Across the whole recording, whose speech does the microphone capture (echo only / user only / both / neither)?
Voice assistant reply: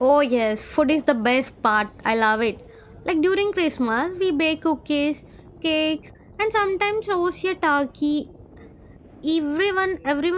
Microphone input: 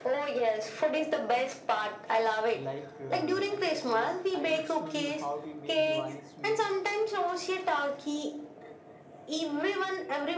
both